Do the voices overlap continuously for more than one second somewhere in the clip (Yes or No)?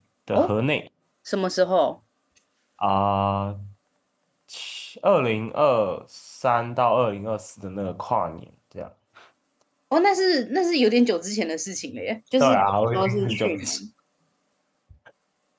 Yes